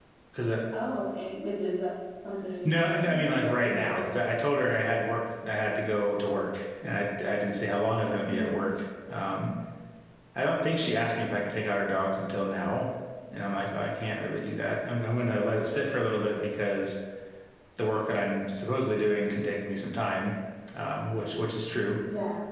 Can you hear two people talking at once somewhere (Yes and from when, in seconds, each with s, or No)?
Yes, from 2.6 s